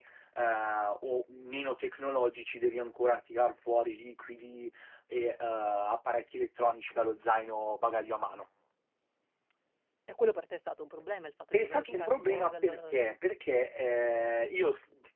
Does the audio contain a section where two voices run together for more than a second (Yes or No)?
Yes